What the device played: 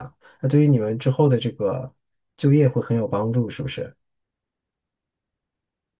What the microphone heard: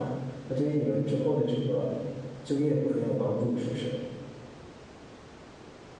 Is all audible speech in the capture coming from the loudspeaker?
Yes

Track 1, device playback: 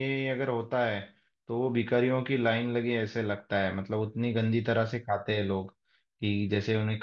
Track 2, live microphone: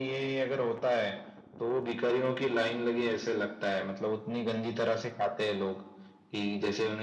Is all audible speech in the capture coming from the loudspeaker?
Yes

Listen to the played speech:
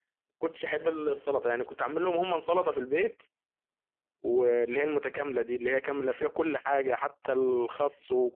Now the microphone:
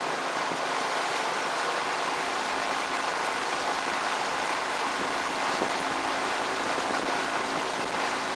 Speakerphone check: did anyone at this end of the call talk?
No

